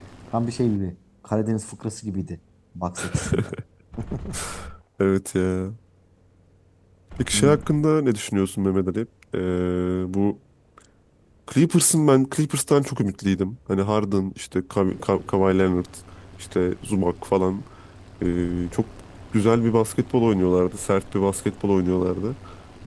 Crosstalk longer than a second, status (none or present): none